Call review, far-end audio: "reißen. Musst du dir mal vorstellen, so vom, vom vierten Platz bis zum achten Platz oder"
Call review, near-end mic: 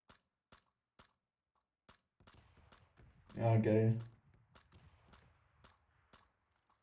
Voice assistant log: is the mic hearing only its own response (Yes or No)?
No